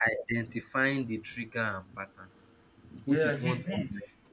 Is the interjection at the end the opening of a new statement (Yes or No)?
Yes